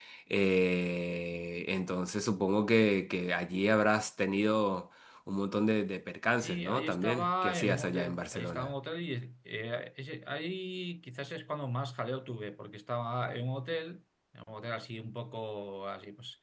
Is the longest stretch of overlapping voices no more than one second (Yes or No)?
No